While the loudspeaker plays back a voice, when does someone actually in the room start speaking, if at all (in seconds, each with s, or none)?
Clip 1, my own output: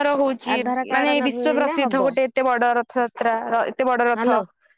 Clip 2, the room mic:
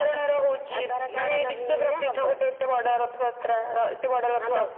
none